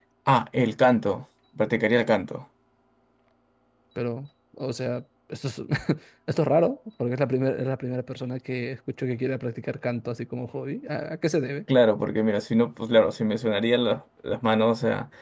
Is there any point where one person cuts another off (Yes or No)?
No